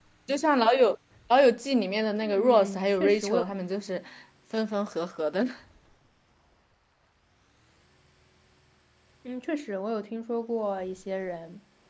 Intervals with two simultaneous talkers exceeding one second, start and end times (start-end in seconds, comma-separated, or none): 2.2-3.4